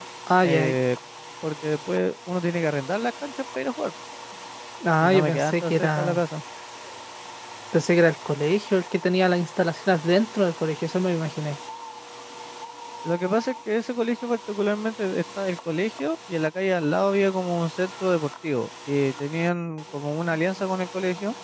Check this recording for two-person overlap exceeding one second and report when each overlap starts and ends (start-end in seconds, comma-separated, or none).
5.0-6.2